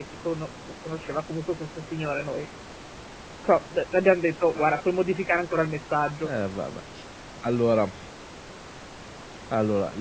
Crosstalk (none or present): none